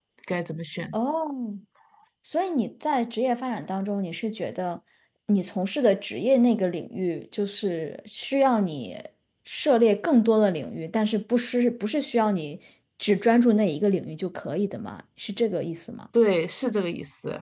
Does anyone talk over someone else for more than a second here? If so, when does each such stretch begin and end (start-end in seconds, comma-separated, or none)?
none